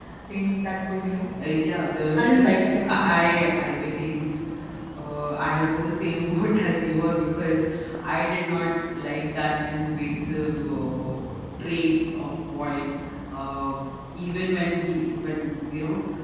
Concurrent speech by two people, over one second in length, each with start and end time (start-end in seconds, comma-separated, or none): 2.1-3.4